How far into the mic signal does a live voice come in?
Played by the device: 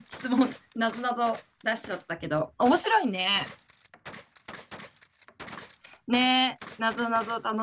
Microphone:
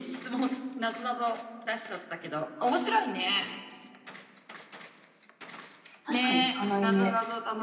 6.0 s

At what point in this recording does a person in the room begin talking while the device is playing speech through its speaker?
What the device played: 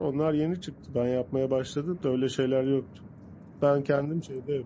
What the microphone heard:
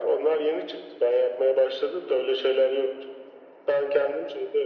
none

